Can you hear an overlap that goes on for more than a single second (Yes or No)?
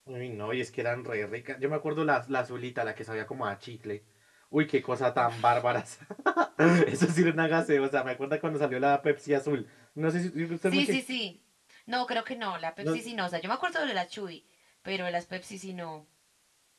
No